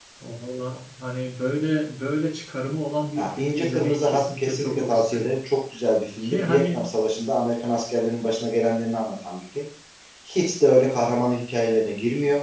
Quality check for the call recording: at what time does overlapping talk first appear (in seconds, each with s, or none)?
3.2 s